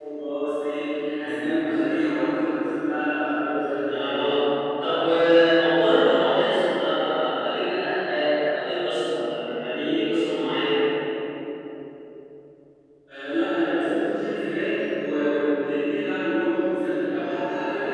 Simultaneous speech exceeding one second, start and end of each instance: none

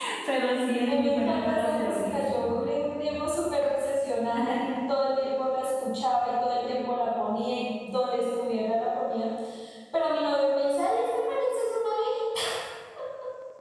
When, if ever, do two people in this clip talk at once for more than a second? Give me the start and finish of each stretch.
0.9-2.4

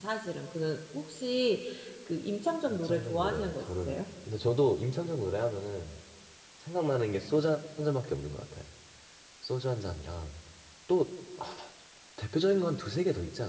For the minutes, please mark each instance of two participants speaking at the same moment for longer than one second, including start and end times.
2.7-4.0

